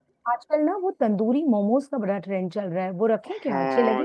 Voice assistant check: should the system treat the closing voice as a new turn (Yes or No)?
Yes